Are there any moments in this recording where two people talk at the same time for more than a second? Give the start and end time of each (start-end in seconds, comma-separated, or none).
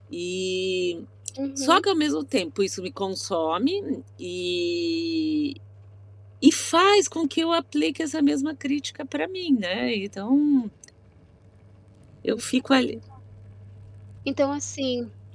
none